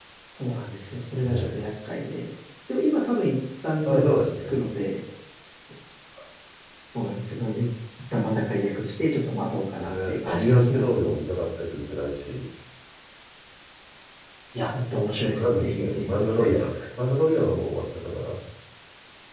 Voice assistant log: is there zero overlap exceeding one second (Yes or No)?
No